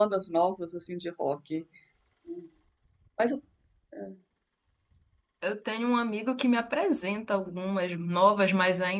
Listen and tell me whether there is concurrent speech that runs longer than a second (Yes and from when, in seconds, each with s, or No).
No